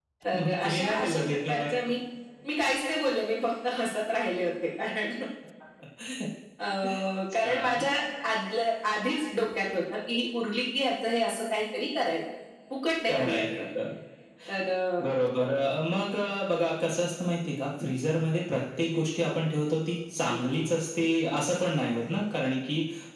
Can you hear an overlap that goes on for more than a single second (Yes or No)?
Yes